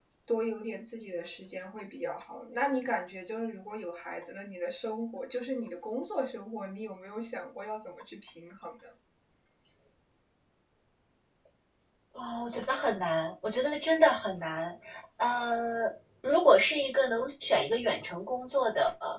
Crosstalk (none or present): none